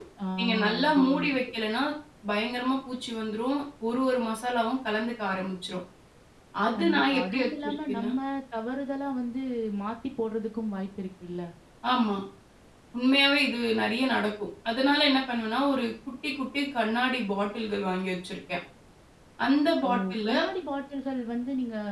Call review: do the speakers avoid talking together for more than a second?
No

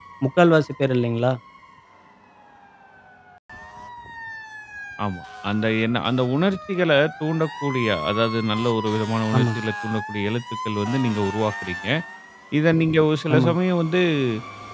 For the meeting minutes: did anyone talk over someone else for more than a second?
No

